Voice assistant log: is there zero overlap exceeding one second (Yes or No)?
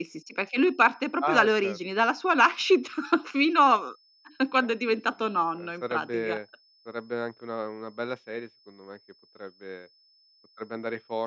No